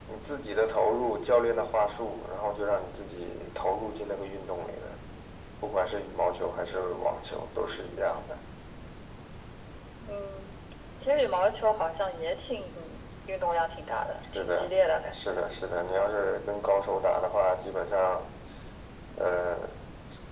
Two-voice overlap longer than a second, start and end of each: none

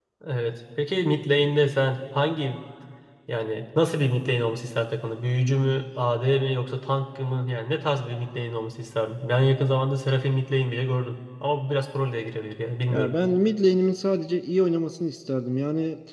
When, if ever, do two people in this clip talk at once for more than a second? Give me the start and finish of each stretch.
none

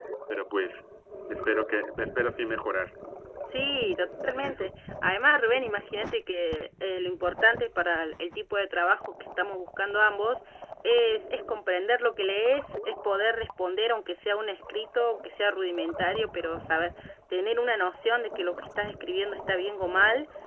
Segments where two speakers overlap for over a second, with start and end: none

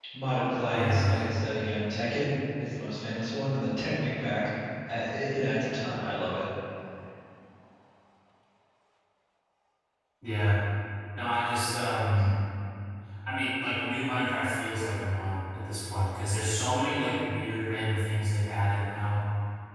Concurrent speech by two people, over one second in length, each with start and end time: none

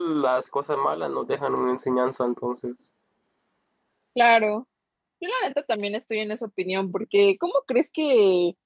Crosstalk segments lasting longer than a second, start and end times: none

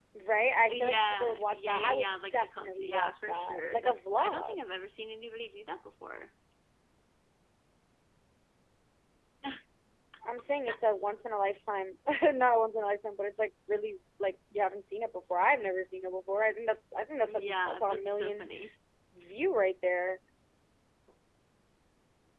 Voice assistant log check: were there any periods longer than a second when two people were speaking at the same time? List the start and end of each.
0.7-4.6, 17.2-18.5

